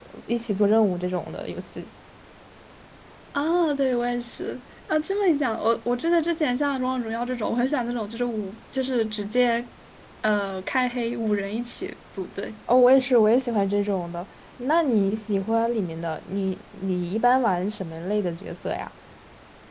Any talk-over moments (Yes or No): No